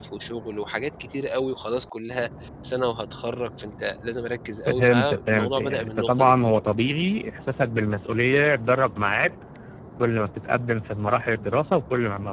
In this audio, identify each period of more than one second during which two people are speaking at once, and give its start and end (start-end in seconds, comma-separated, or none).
4.7-6.3